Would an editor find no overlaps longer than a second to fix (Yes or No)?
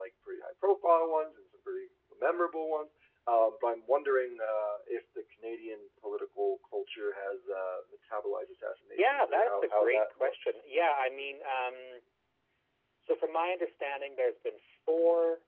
No